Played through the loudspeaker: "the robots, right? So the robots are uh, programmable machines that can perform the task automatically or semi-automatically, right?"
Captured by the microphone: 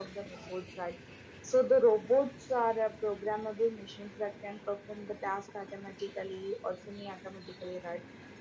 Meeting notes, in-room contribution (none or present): none